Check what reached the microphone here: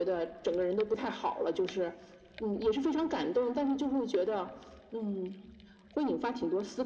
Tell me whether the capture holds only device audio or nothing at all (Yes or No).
Yes